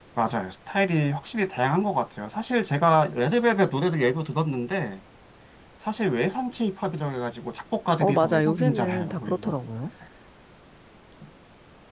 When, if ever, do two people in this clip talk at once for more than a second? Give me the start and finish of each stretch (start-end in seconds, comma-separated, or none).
8.0-9.6